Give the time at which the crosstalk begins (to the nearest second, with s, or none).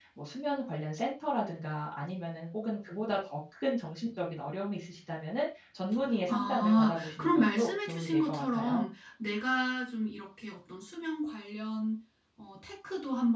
6 s